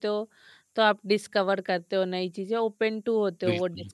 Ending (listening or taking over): taking over